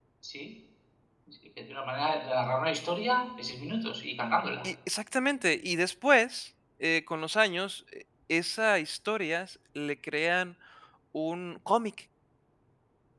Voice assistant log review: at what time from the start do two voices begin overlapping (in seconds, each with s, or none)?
none